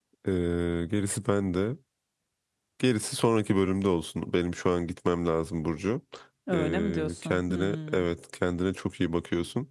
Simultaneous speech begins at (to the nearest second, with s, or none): 7 s